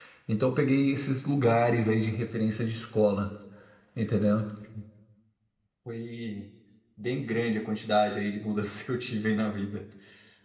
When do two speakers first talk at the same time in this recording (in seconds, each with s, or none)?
none